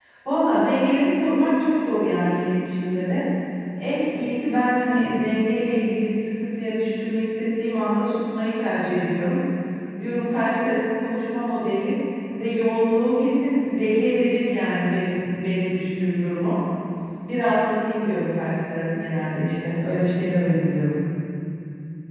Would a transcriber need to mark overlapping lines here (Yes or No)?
No